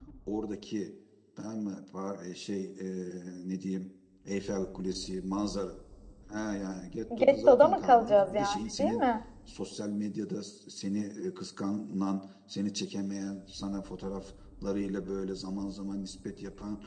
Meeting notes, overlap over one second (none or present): present